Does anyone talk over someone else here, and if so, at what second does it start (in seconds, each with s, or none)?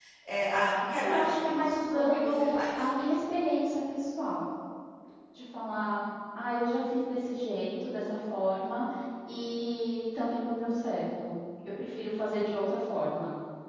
1.0 s